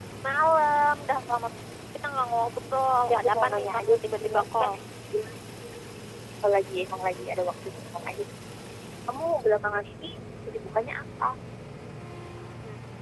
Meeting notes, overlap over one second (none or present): present